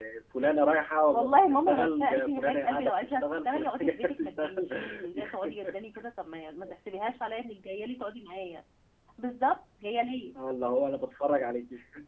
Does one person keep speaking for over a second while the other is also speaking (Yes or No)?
Yes